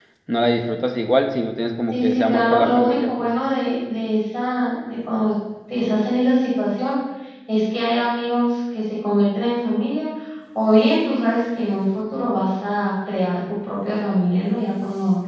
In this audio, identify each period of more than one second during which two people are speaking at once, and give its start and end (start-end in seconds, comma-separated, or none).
1.9-3.3